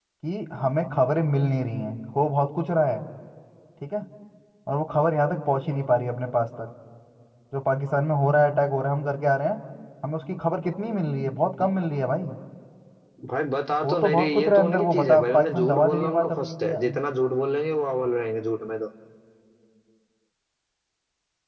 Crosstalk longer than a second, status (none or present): present